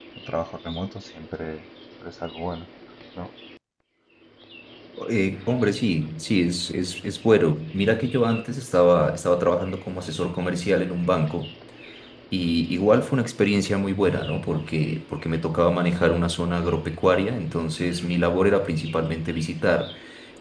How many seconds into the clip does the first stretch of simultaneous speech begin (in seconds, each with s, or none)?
none